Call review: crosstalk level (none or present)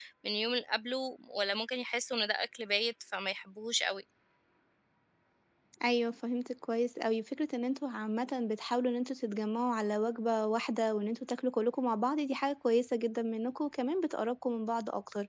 none